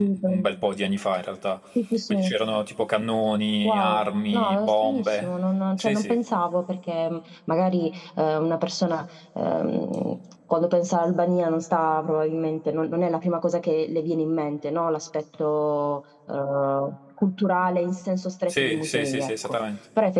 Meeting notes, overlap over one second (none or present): present